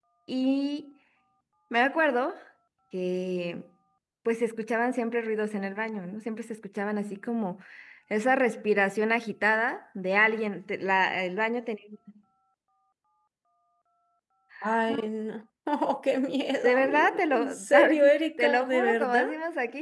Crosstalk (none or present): present